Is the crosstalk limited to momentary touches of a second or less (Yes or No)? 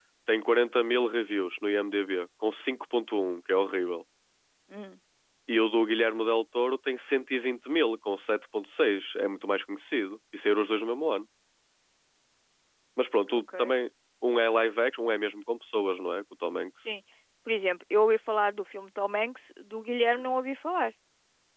Yes